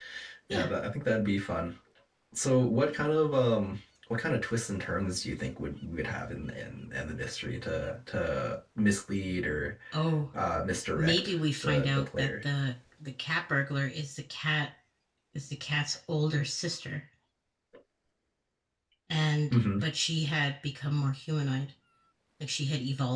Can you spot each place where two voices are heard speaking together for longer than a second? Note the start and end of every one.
11.0-12.3

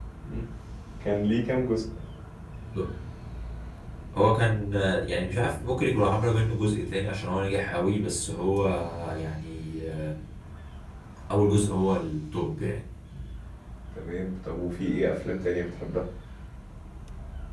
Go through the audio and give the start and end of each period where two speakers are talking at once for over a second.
none

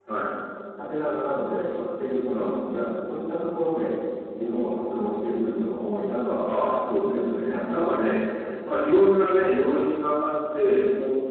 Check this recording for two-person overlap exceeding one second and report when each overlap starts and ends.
7.0-8.2

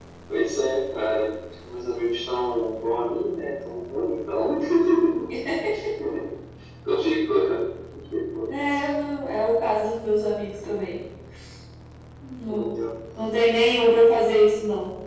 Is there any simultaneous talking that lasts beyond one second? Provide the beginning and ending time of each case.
none

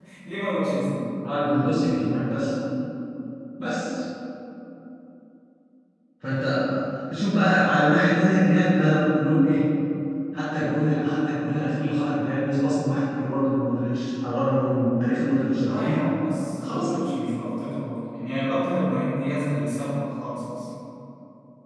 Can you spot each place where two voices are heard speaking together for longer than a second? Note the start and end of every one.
none

